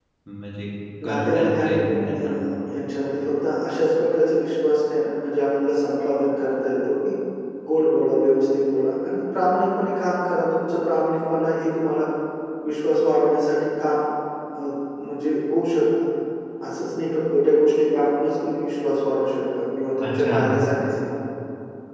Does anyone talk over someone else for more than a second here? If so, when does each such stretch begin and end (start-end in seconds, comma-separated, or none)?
1.0-2.2